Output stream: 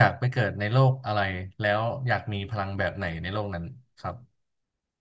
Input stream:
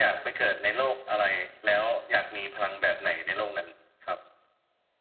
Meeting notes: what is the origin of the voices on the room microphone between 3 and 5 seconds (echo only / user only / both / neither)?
echo only